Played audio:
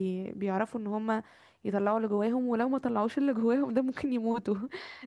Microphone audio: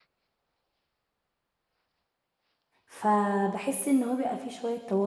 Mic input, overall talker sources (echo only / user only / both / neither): user only